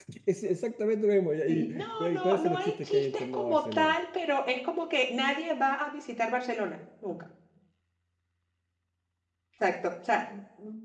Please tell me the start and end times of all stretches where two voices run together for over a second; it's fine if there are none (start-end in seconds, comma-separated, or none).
1.5-4.0